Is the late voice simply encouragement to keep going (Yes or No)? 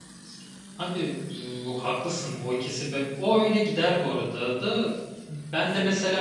Yes